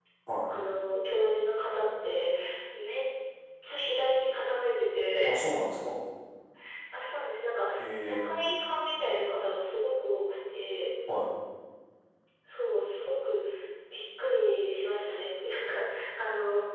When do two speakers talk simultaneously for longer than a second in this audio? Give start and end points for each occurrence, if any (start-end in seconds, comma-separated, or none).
none